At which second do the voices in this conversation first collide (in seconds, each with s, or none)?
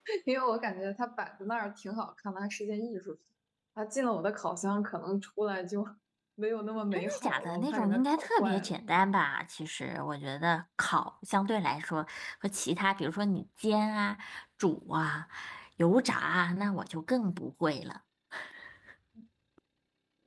6.9 s